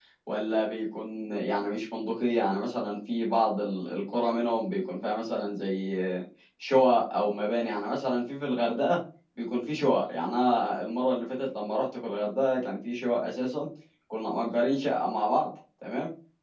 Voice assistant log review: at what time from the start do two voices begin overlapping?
none

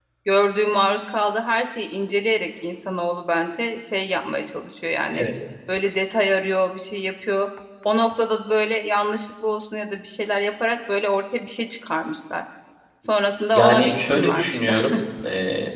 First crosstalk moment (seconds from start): 14 s

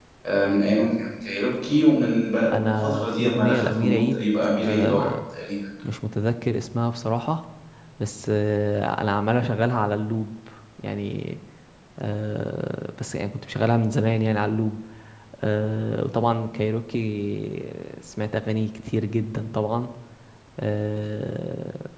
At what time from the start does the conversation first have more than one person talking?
3 s

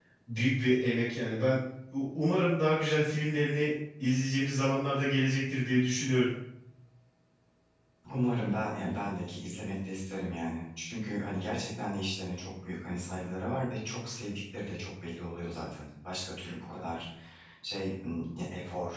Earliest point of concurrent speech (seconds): none

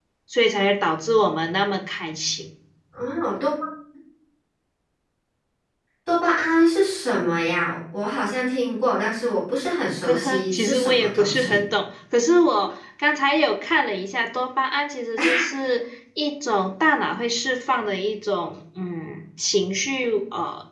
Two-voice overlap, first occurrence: 10 s

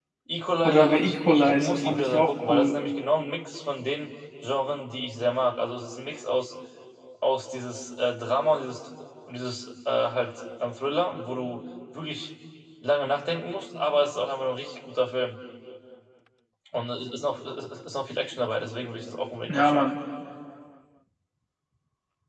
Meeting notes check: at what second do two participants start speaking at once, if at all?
1 s

